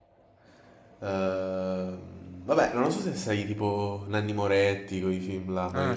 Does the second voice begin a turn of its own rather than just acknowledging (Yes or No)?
Yes